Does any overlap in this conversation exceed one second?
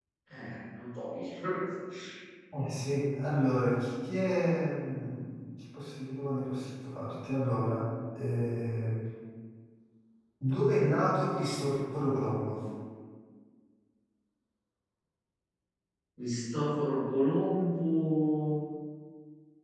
No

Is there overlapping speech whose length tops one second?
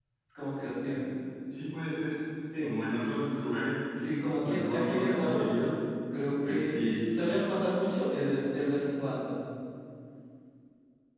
Yes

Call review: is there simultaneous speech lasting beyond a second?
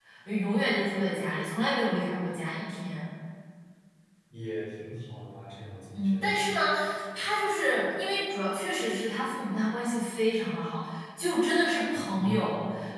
No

